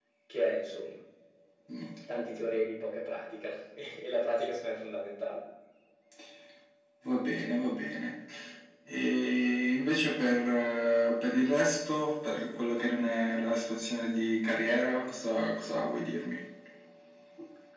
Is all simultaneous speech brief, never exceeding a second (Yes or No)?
Yes